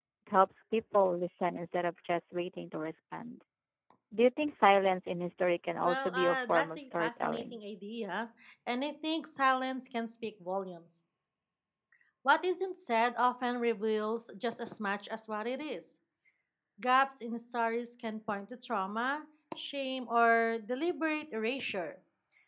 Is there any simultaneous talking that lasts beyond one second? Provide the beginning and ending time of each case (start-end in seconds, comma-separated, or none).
5.8-7.6